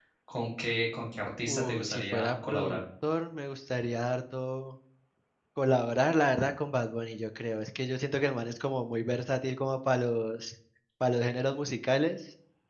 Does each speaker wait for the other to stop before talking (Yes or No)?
No